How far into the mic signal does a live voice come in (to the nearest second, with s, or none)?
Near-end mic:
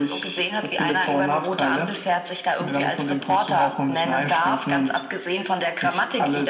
none